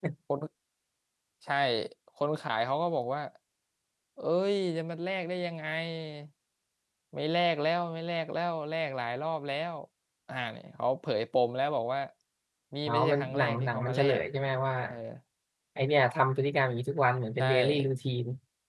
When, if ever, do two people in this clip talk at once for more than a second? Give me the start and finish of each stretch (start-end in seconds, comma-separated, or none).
12.9-14.2